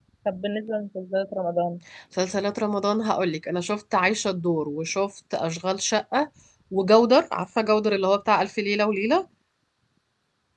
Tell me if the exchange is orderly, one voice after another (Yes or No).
Yes